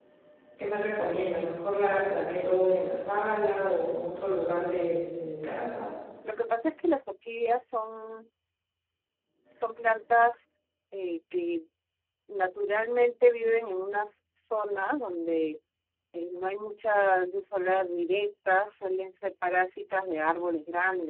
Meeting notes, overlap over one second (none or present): none